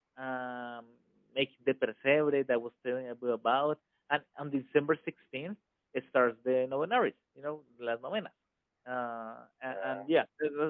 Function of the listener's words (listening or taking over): listening